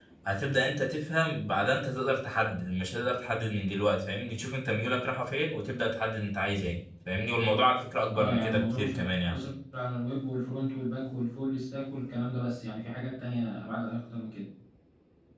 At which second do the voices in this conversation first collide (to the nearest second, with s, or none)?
8 s